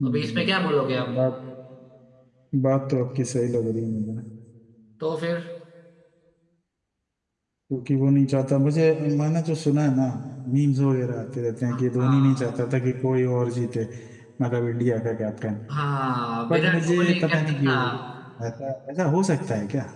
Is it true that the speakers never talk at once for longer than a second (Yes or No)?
No